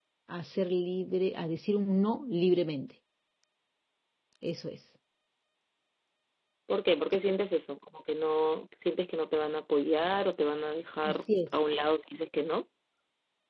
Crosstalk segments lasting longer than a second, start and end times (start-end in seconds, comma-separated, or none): none